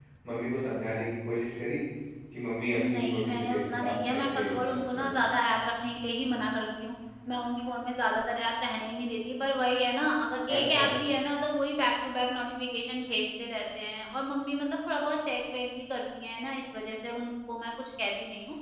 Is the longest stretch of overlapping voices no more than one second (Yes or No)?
No